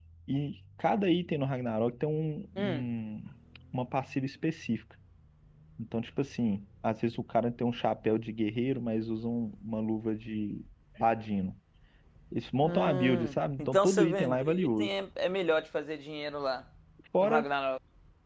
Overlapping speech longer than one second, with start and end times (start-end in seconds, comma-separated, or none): 12.6-14.9